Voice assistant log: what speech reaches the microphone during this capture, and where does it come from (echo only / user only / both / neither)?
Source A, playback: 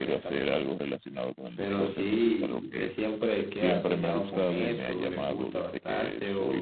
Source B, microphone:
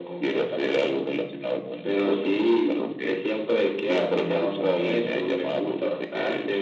echo only